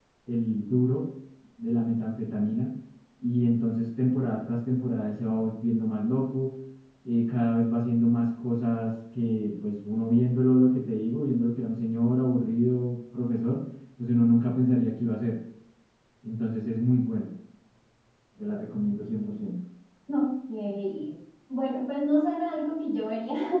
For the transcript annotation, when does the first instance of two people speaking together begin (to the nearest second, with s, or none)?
none